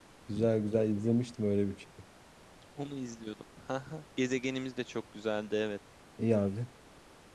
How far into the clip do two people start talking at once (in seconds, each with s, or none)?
none